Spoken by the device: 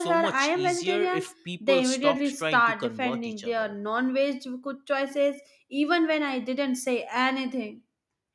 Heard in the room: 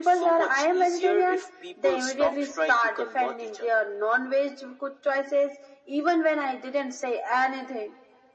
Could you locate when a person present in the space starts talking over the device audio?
none

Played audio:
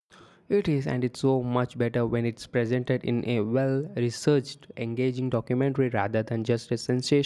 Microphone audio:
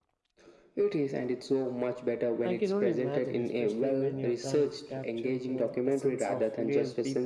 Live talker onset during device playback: 2 s

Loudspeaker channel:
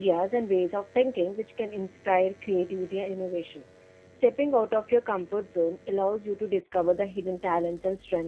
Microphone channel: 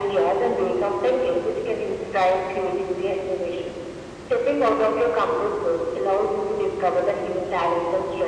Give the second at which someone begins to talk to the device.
none

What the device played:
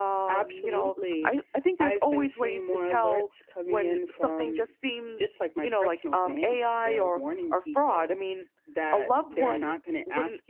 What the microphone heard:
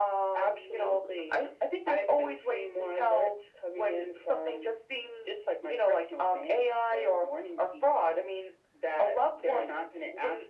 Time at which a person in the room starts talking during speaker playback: none

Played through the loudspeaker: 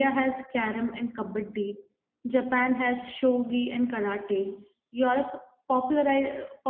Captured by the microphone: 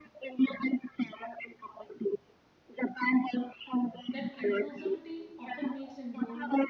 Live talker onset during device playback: 4 s

